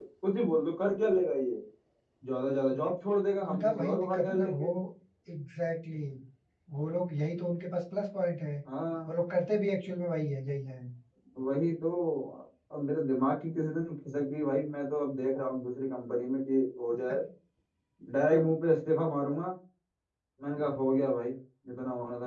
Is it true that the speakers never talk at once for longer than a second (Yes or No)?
No